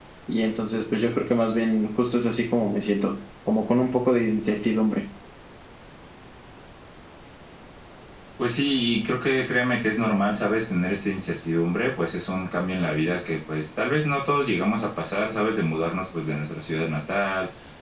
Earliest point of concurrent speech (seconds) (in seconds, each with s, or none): none